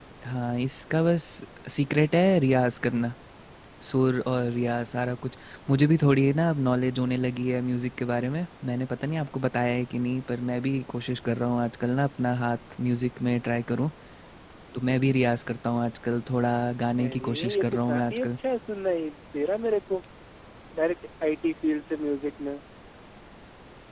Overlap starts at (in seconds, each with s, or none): 17.0 s